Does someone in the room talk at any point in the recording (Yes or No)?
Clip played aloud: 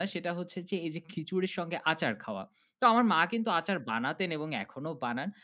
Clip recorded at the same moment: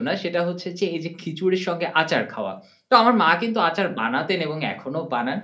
No